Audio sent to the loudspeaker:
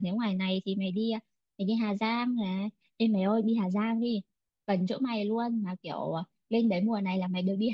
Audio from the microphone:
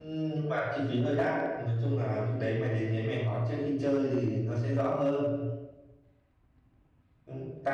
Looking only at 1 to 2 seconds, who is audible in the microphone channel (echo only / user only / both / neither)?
user only